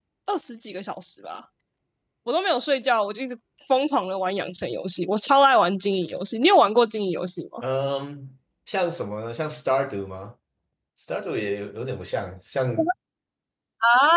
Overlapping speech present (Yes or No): No